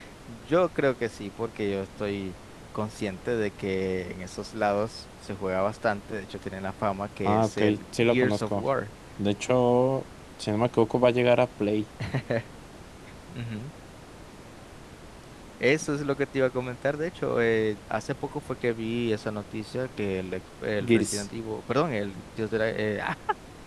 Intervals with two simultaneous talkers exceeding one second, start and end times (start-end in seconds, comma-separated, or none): 7.2-8.6